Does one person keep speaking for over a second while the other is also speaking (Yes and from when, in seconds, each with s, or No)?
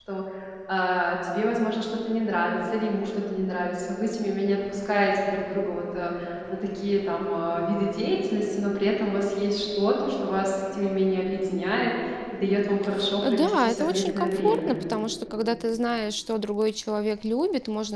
Yes, from 13.0 s